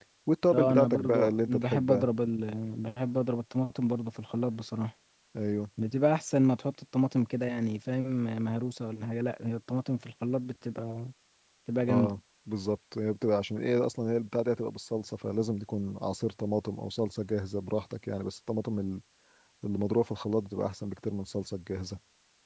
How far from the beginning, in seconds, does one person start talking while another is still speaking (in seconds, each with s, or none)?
0.5 s